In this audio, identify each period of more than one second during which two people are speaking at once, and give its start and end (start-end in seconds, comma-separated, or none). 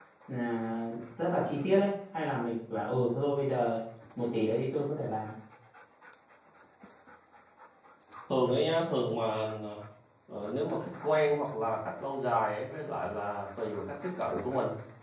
none